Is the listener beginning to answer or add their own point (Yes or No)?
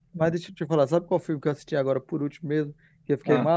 No